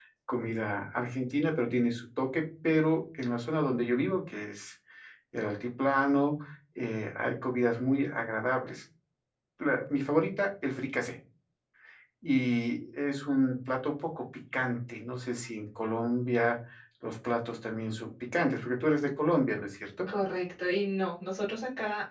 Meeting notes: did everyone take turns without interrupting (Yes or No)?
Yes